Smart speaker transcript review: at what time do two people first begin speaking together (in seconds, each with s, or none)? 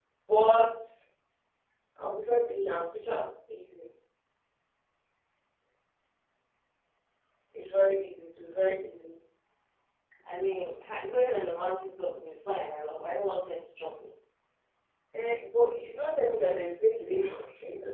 none